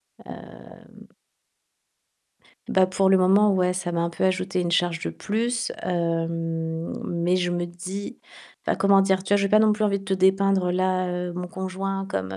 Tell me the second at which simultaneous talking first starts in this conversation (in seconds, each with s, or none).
none